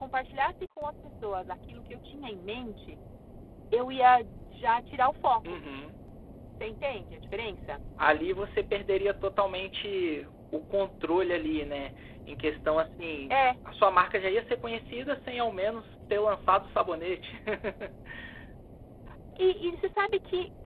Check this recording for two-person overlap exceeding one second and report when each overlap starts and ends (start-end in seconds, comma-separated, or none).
none